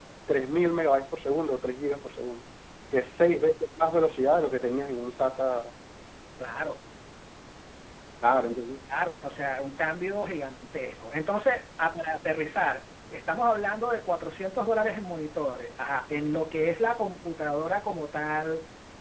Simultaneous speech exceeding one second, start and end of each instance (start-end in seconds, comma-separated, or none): none